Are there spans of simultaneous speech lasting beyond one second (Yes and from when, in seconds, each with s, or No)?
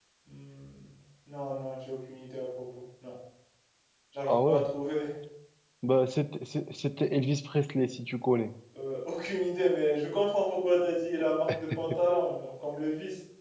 No